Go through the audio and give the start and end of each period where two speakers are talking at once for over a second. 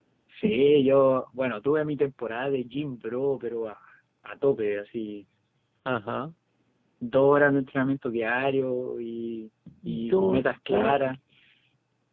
9.8-11.2

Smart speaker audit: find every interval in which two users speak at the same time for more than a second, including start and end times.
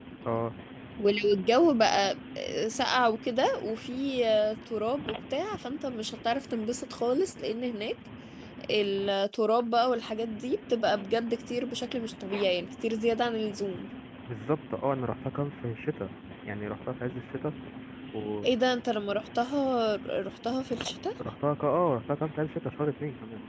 none

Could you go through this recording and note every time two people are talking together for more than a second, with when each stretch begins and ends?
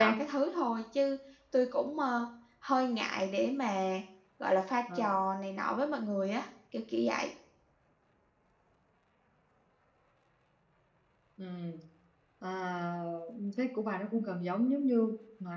none

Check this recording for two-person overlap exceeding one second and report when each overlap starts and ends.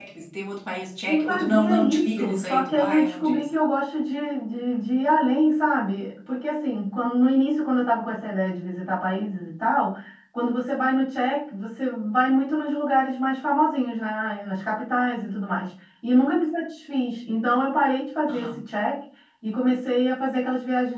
1.1-3.7

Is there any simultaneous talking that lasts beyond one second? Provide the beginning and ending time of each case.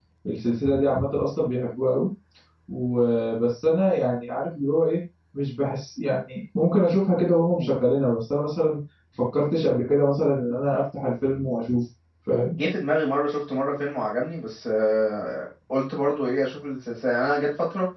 none

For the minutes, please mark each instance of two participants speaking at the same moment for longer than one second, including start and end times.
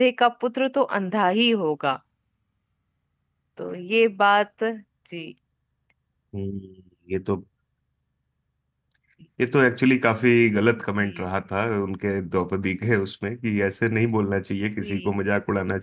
none

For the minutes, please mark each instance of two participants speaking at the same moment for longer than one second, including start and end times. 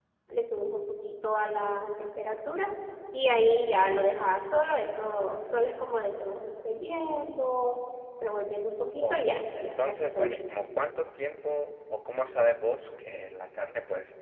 9.0-10.4

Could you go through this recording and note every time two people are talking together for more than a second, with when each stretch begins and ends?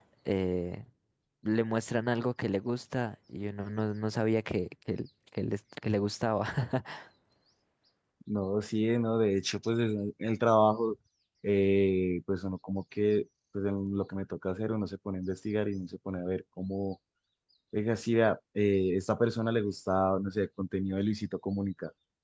none

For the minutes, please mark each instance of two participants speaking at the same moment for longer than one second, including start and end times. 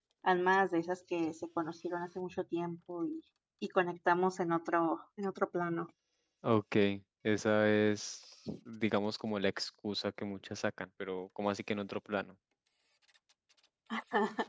none

